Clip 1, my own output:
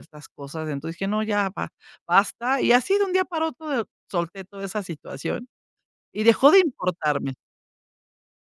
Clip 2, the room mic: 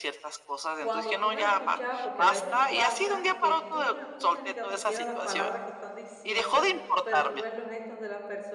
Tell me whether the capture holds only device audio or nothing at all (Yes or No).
No